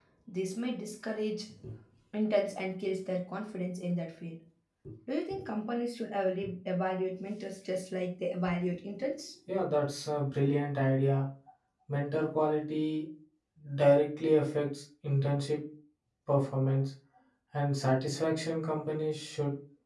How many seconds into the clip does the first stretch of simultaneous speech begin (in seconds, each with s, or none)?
none